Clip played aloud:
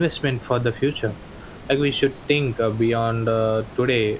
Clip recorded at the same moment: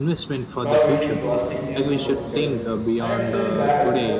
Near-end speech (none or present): present